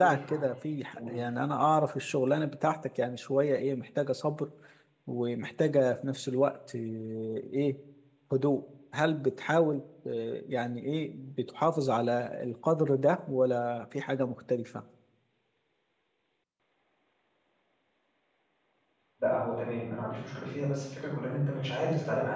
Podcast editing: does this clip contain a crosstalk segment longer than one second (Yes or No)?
No